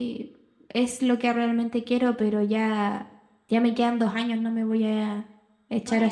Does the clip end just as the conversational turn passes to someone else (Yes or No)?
Yes